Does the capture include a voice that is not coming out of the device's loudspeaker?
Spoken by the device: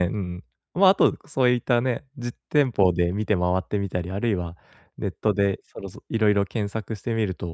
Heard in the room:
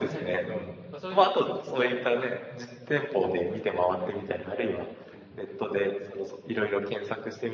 Yes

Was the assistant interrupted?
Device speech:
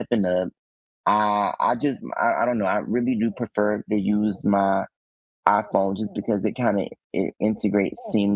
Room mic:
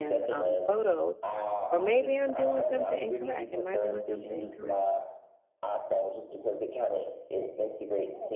Yes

